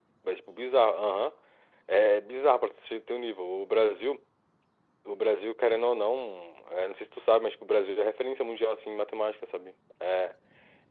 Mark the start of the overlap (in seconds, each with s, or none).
none